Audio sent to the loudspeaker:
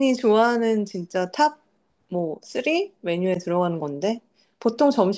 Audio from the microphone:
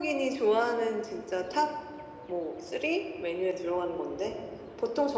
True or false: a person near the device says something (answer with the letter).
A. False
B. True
A